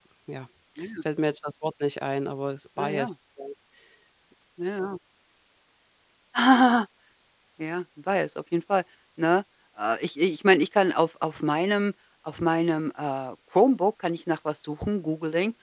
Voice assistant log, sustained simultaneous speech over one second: none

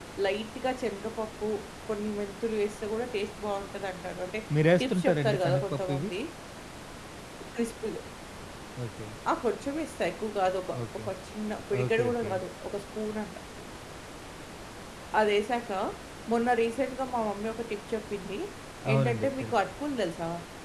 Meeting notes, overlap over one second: present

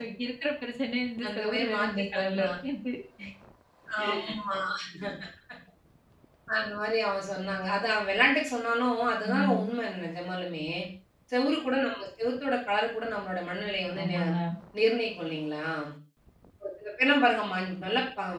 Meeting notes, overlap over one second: present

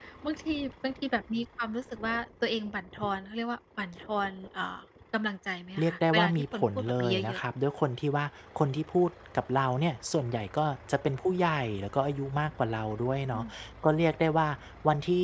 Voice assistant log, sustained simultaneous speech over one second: present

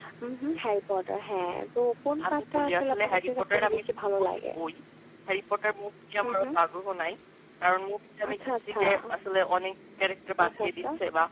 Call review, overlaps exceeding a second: present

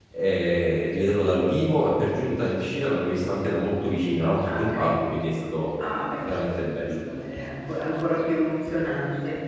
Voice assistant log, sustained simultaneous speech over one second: none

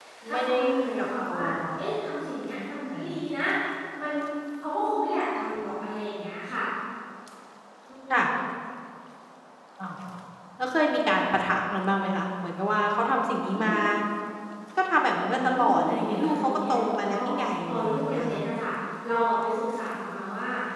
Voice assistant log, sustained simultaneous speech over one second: present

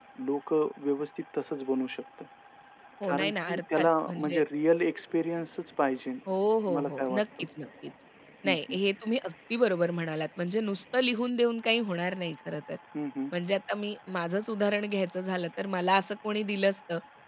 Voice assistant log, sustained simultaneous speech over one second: present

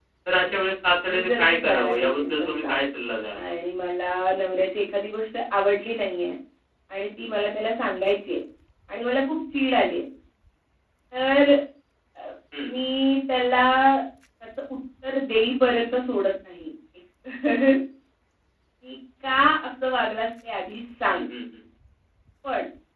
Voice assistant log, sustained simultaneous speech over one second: present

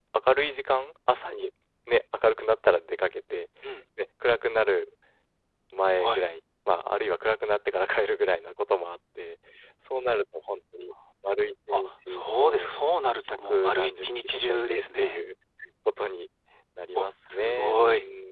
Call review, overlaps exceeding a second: present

